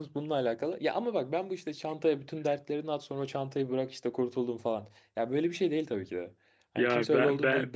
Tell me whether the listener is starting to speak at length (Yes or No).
Yes